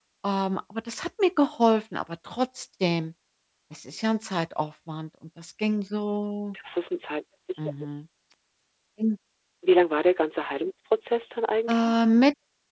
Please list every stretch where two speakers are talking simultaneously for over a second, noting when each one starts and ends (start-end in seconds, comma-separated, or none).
none